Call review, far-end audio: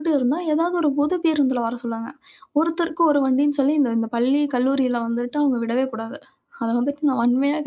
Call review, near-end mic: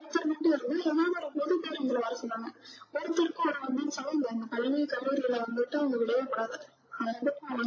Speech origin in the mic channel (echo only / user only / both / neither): echo only